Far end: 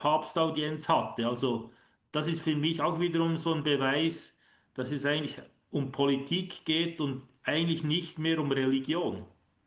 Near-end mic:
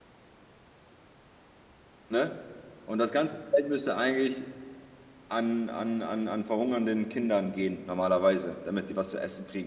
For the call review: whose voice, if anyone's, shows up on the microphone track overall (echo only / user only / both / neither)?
user only